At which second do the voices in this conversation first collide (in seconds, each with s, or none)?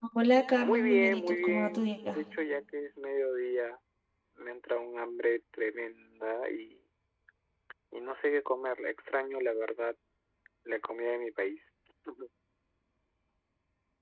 0.6 s